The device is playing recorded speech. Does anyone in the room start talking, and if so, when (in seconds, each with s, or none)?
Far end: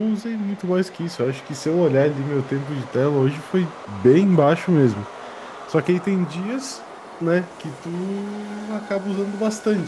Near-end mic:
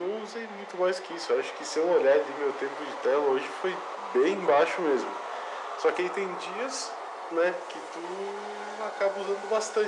none